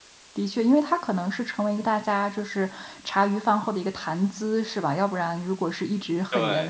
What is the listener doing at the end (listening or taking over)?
listening